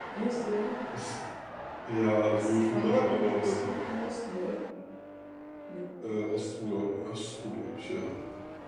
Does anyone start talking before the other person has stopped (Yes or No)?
Yes